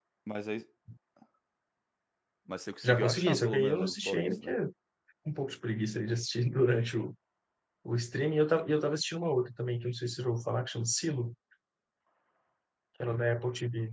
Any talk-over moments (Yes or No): Yes